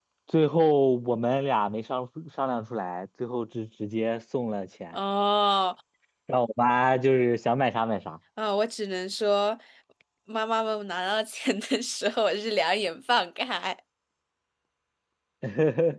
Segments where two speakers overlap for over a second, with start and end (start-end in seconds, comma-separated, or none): none